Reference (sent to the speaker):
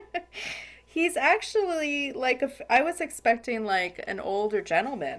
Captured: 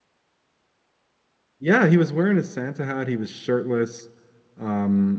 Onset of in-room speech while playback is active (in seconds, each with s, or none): 1.6 s